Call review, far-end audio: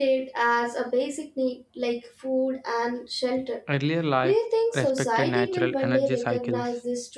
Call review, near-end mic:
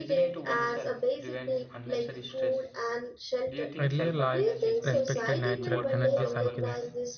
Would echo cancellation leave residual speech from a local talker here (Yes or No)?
Yes